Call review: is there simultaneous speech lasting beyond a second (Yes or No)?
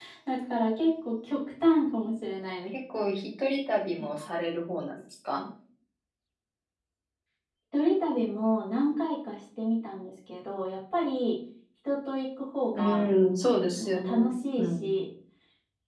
Yes